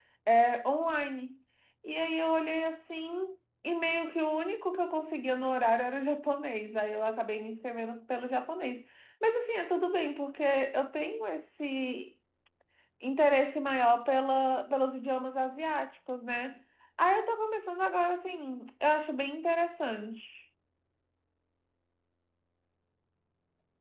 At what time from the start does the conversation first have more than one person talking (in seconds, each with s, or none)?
none